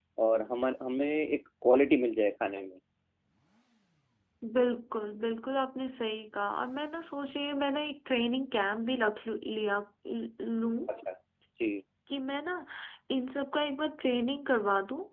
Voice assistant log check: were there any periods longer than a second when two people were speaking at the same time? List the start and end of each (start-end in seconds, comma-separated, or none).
none